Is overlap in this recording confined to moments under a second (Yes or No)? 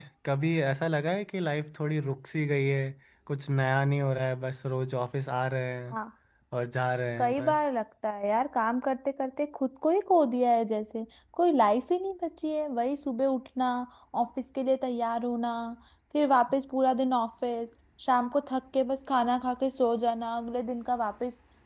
Yes